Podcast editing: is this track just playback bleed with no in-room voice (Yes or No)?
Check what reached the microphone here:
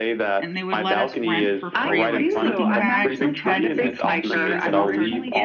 No